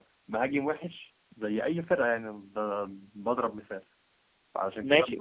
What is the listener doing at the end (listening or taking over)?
taking over